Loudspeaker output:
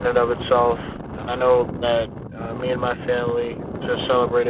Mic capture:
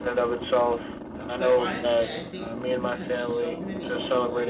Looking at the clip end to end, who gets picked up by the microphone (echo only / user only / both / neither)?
both